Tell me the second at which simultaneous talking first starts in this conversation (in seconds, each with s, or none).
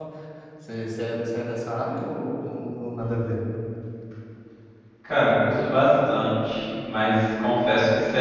none